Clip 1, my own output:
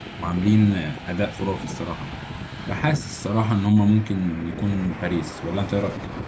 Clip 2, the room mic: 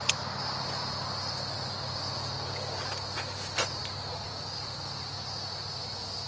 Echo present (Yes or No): No